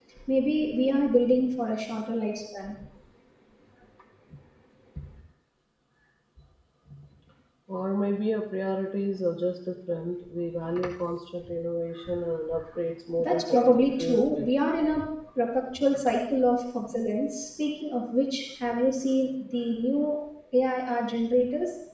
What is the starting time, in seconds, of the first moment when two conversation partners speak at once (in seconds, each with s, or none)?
13.2 s